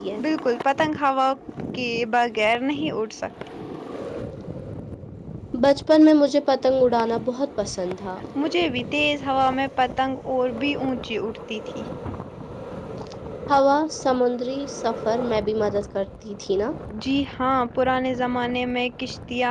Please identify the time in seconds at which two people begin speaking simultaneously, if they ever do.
none

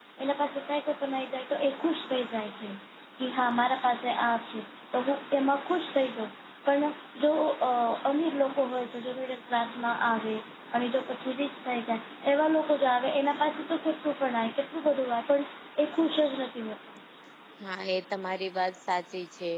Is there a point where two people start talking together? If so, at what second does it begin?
none

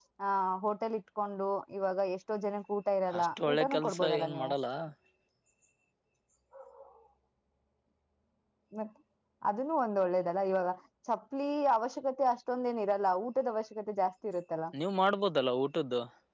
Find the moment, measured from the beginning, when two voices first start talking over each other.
3 s

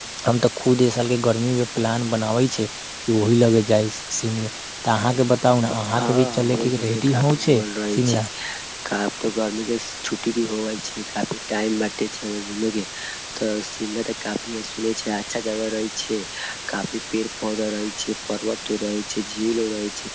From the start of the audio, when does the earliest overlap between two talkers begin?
6 s

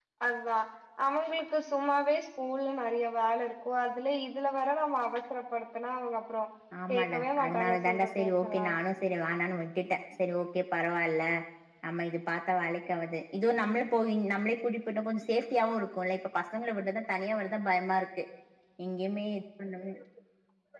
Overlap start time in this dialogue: 7 s

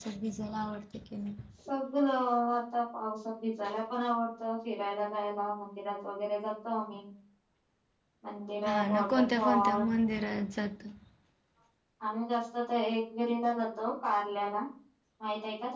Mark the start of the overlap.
9 s

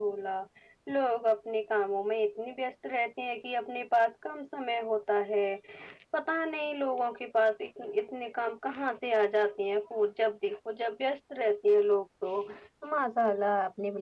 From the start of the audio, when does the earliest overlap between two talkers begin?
none

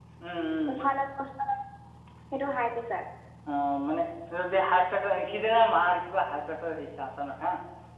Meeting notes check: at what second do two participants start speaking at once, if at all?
none

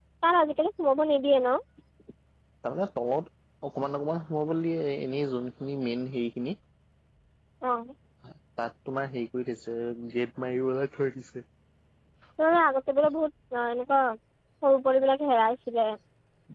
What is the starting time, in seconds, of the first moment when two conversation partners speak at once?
none

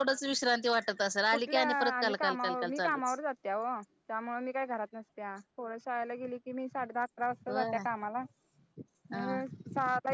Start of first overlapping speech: 1 s

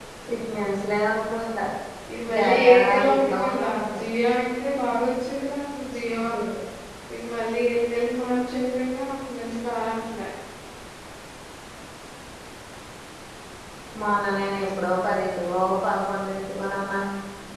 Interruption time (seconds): 2 s

